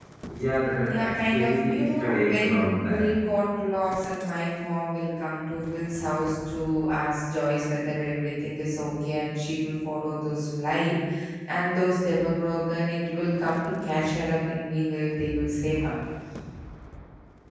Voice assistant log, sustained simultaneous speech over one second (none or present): present